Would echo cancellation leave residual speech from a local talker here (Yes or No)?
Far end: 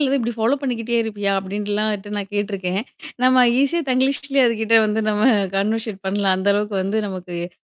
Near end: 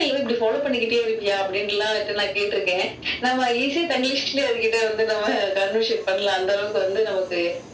No